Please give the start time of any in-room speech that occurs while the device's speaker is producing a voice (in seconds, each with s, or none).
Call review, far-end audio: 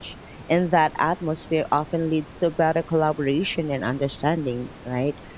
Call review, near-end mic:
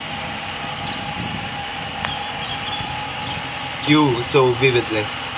3.8 s